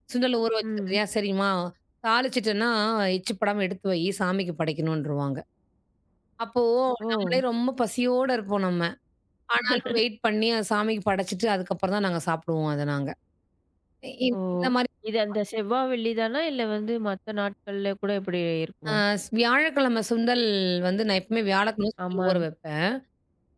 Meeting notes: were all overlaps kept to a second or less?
Yes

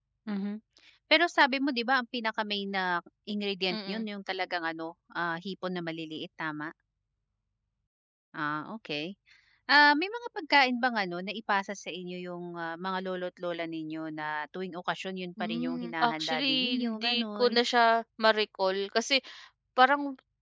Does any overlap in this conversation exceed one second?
Yes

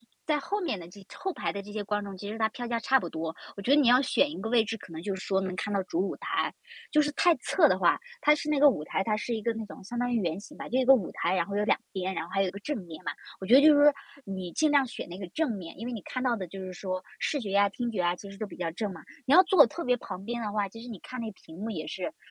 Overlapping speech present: No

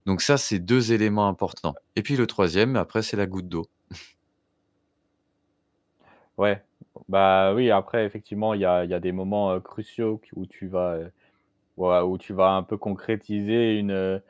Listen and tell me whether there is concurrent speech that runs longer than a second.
No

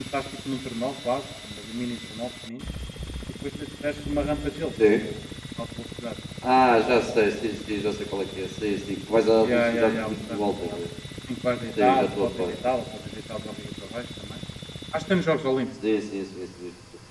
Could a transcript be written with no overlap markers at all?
No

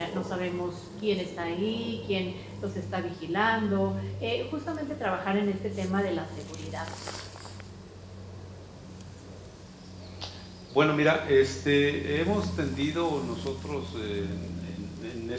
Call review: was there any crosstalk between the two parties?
No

